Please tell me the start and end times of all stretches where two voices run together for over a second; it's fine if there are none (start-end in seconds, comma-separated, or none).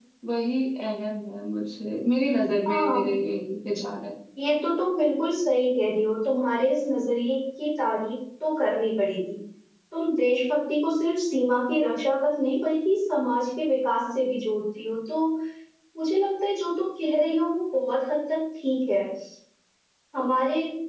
none